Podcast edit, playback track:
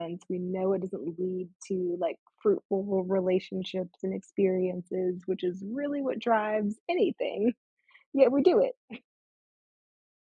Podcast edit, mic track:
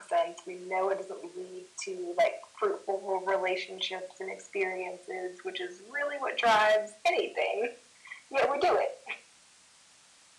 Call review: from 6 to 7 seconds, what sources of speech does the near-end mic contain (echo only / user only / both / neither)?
echo only